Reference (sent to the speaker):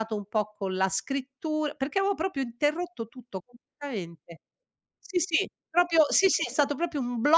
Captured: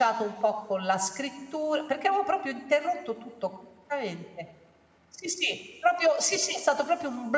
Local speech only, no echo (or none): none